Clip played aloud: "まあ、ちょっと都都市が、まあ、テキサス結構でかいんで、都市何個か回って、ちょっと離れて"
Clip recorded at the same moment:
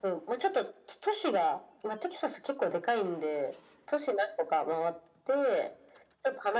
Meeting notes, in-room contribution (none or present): none